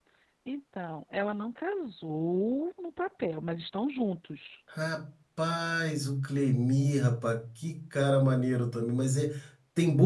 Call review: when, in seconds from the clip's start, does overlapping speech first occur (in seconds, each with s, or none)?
none